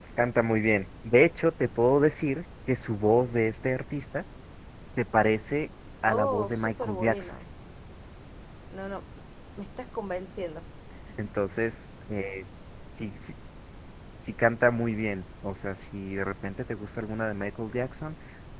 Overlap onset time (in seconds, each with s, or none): 6.1 s